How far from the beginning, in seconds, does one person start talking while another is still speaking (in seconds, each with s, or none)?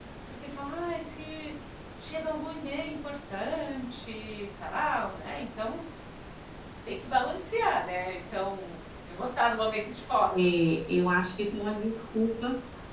none